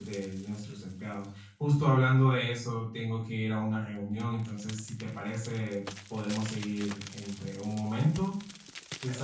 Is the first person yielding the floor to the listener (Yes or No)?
Yes